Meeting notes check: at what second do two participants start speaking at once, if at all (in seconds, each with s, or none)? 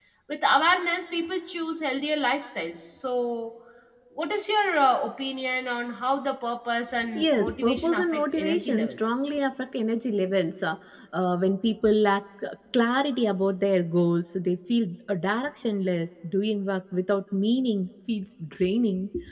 7.2 s